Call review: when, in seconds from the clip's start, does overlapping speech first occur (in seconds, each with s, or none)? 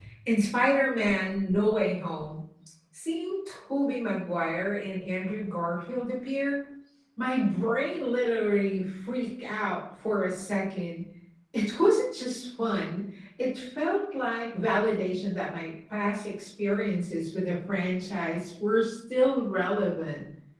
none